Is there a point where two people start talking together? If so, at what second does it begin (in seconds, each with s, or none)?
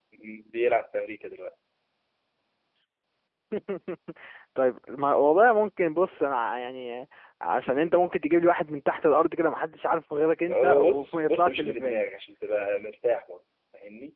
10.5 s